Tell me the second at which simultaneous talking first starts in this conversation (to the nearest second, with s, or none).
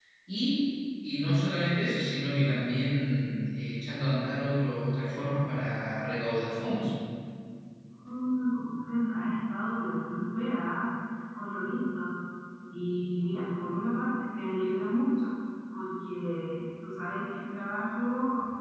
none